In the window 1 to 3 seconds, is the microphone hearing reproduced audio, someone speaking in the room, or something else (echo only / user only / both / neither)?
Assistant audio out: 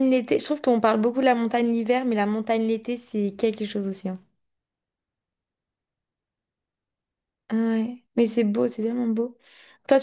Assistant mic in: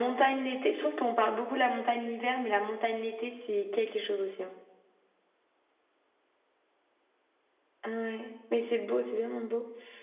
echo only